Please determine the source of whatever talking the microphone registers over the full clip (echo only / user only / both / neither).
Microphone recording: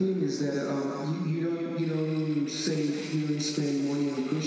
echo only